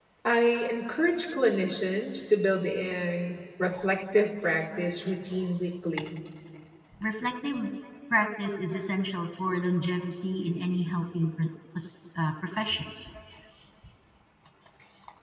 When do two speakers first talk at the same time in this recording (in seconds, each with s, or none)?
none